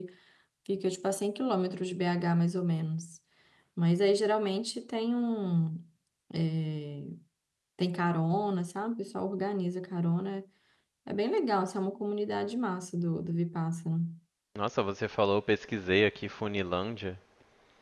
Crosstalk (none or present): none